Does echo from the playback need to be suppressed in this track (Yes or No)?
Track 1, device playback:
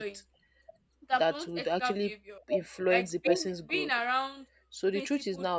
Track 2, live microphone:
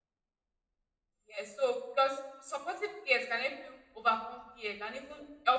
No